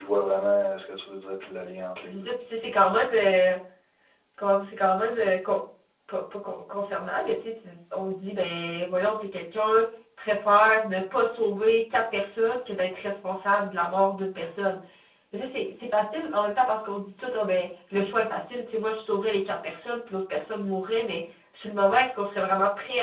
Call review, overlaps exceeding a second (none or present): none